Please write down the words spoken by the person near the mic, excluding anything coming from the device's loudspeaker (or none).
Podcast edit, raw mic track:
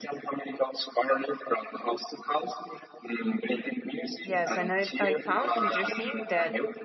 Yes, and I, I found interesting that